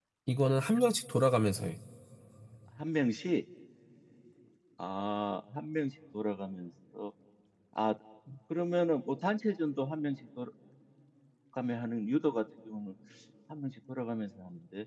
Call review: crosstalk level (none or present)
none